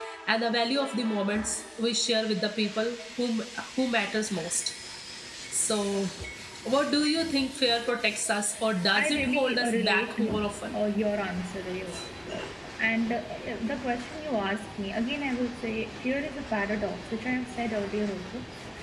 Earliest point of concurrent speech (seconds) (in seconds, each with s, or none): 8.9 s